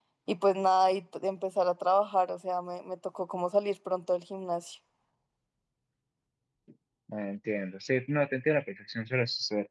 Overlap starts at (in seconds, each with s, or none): none